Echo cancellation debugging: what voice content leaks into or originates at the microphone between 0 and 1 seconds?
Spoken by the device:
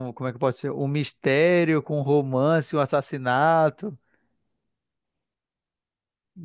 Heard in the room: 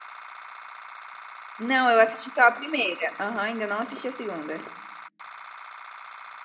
neither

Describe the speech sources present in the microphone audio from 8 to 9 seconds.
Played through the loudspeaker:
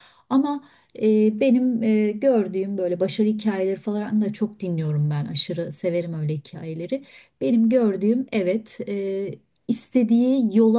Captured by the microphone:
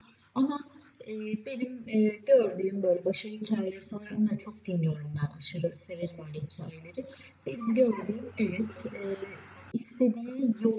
echo only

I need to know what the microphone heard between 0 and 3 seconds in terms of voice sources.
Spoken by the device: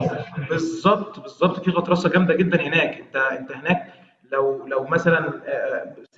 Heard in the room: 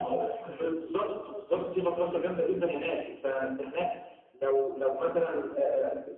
echo only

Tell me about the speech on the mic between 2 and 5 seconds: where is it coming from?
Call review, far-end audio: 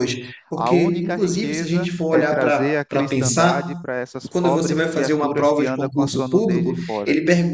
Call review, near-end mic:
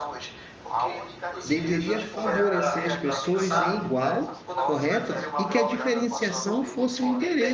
both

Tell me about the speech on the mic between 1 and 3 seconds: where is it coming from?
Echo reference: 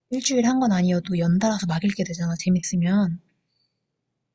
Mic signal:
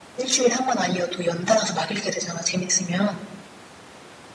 echo only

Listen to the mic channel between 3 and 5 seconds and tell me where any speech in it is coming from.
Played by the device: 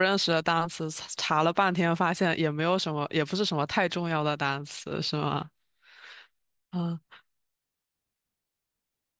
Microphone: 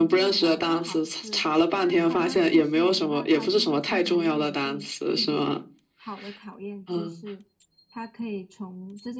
both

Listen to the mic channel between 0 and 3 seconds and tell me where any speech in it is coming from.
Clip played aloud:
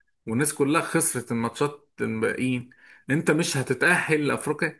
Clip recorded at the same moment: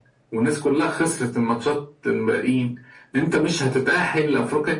echo only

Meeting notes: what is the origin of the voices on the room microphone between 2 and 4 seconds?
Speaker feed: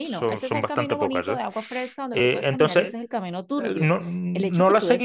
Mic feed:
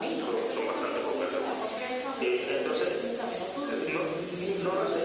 echo only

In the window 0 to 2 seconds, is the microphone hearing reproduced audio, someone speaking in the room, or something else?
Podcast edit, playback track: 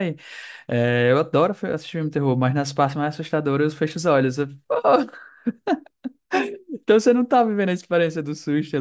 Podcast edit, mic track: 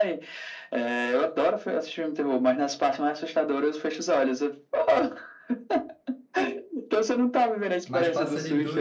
echo only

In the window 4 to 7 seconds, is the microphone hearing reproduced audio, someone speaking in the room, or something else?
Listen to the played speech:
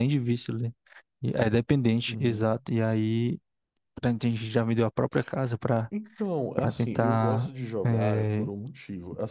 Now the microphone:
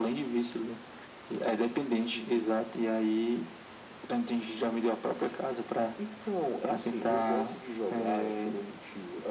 echo only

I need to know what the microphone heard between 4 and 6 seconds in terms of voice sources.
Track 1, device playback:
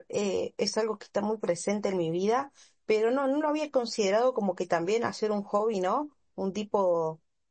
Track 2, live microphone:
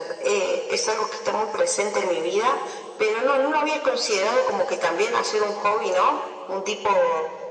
echo only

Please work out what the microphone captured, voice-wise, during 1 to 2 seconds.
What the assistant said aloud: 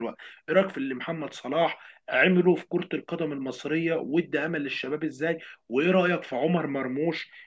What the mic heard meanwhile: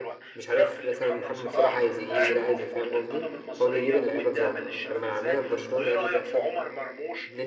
both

